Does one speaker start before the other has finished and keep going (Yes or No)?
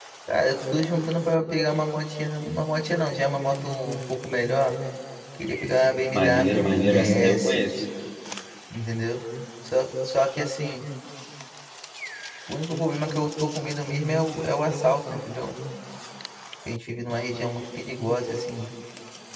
Yes